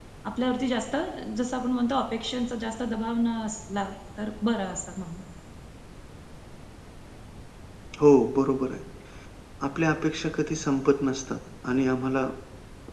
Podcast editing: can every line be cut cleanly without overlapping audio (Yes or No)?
Yes